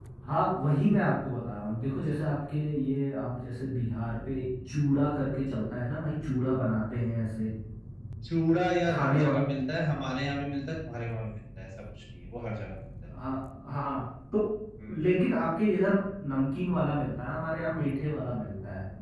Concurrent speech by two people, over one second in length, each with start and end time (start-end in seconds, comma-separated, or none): none